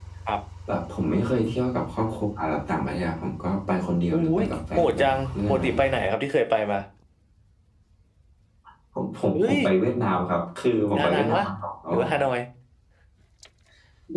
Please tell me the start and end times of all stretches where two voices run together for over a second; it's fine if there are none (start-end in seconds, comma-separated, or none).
4.1-5.9